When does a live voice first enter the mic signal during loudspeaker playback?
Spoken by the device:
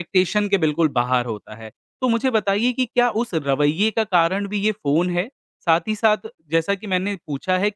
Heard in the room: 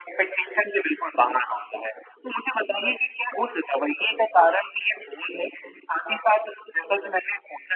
none

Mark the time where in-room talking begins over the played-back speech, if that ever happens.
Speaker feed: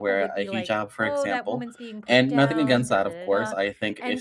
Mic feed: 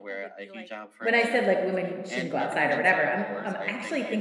1.0 s

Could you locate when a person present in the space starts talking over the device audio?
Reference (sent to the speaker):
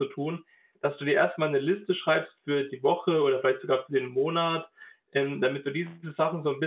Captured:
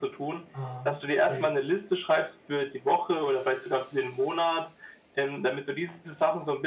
0.5 s

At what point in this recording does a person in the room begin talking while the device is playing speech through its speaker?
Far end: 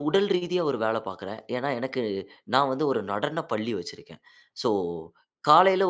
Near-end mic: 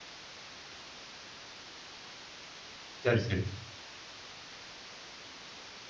3.0 s

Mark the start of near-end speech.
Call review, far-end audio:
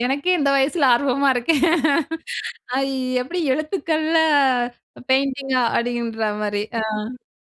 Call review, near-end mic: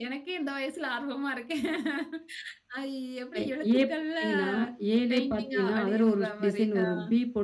3.3 s

